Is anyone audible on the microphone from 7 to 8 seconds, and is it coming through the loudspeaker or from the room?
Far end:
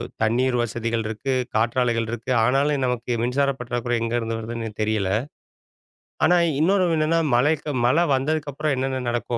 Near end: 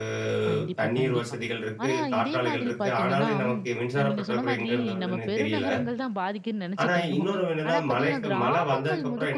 both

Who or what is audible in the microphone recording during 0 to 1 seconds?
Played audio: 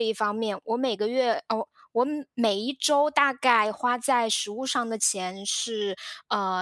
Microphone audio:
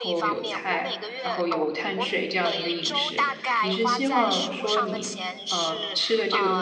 both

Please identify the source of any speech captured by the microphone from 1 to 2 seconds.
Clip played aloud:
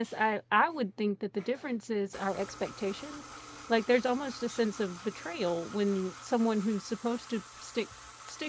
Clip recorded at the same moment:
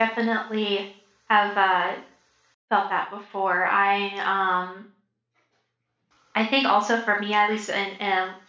user only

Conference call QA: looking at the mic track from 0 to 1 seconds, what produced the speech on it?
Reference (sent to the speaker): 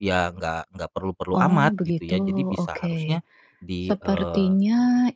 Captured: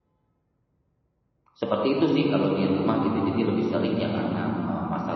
neither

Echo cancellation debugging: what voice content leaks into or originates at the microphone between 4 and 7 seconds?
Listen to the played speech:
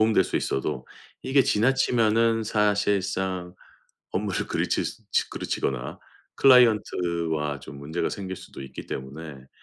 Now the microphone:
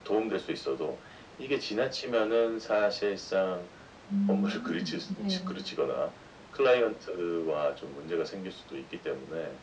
both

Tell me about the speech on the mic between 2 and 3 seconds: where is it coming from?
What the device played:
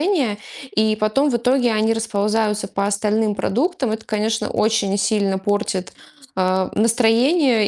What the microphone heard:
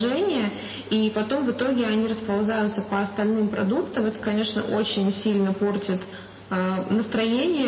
echo only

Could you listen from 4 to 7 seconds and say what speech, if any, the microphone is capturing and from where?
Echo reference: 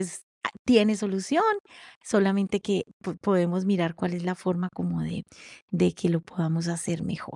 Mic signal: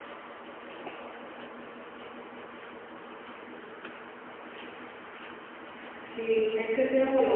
user only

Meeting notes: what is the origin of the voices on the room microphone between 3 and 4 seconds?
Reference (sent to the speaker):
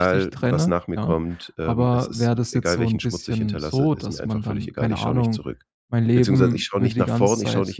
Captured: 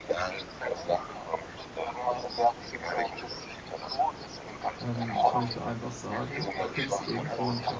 echo only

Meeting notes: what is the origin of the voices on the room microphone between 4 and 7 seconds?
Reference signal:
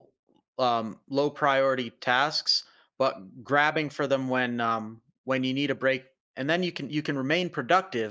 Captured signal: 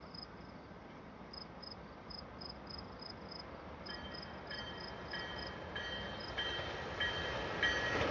neither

